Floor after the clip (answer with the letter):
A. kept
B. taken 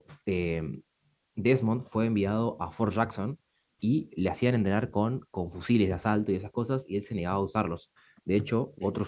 A